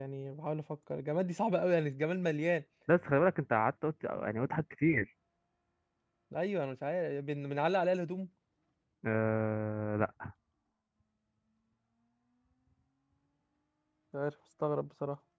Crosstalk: none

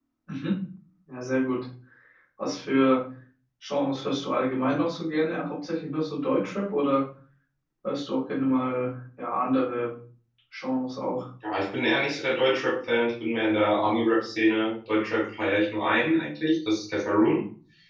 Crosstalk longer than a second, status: none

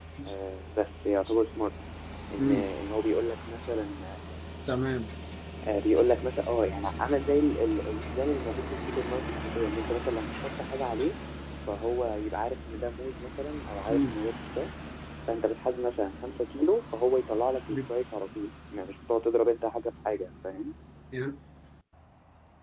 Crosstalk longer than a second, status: none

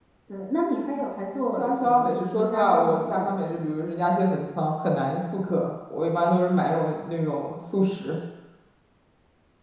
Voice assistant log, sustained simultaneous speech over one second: present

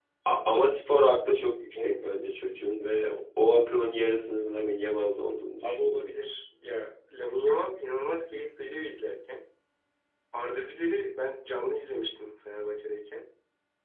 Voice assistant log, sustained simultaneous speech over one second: none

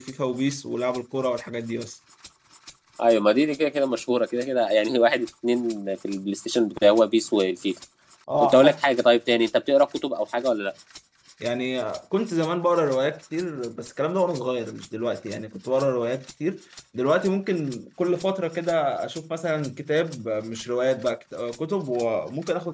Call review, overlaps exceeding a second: none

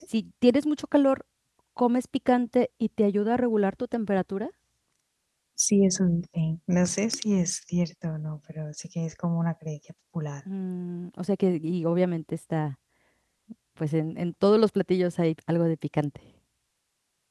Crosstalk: none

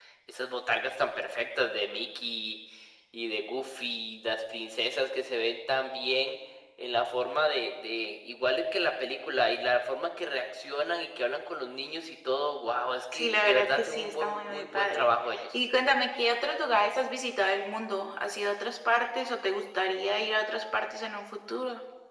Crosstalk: present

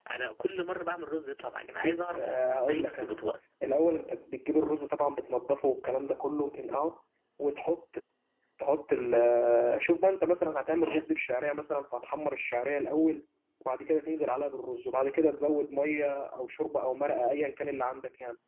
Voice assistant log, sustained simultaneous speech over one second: present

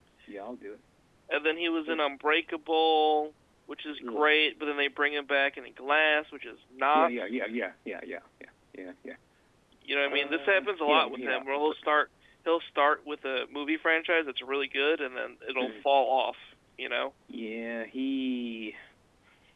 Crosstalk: present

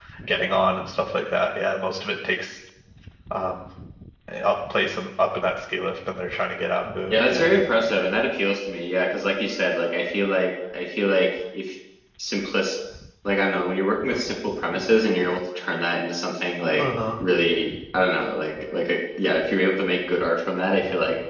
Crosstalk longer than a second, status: none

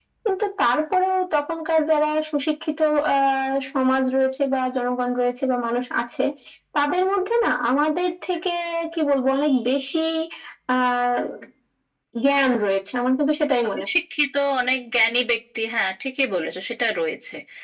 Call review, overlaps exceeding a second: none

